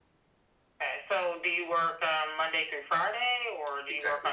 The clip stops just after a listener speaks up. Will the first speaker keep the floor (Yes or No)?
No